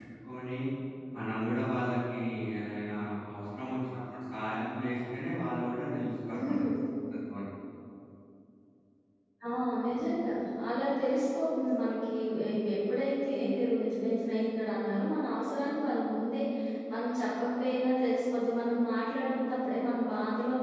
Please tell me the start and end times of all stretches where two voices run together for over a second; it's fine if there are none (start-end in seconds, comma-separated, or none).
none